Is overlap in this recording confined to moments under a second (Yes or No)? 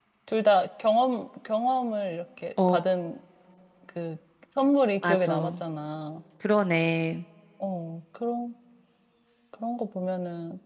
Yes